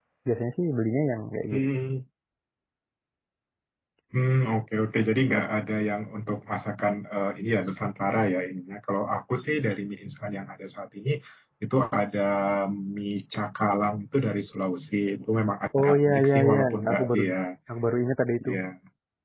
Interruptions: present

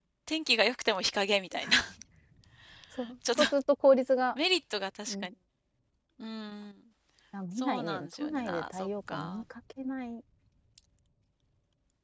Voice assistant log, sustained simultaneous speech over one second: present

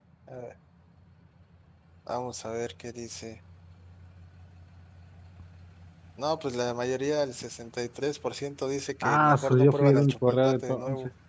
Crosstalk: present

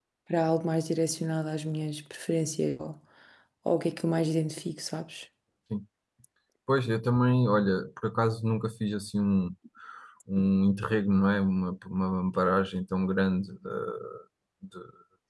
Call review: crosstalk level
none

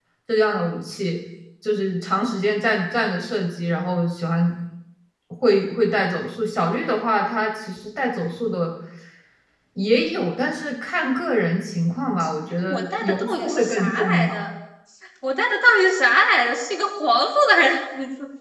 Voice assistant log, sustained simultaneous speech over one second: present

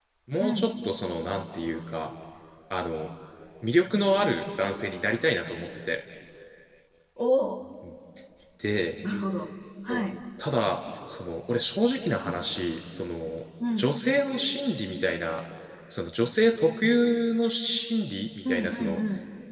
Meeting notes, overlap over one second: none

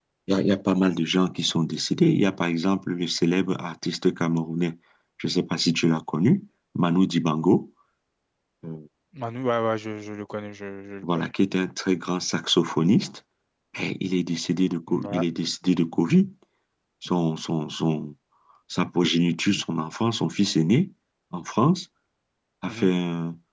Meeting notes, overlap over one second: none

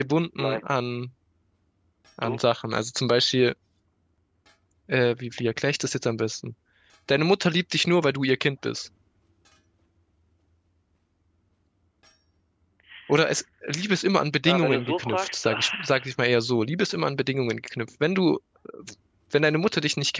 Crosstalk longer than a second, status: present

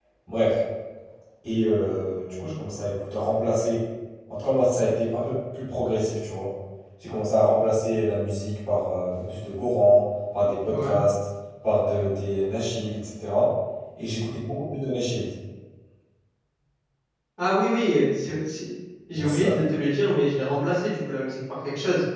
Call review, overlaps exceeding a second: none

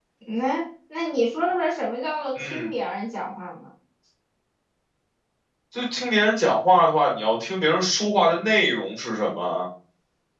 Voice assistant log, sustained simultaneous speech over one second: none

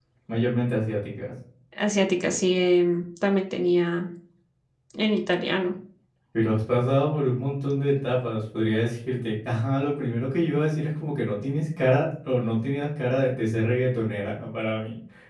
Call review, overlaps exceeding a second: none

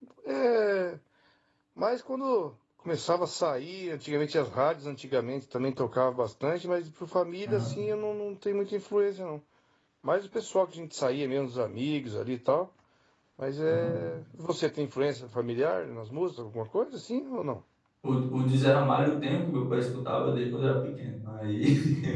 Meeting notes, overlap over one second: none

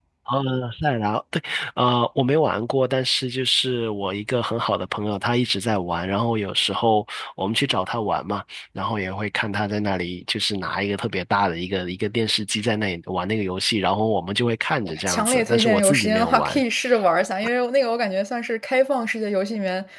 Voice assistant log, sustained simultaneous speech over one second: present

